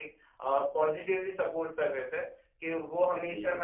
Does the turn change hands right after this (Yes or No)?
No